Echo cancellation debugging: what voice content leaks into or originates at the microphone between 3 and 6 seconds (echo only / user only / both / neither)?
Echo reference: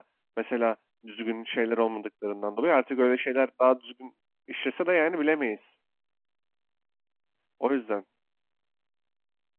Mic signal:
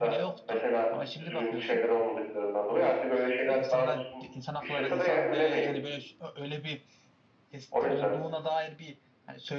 both